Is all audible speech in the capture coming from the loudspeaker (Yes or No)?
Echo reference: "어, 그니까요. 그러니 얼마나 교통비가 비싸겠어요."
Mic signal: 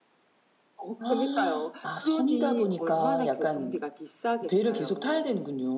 No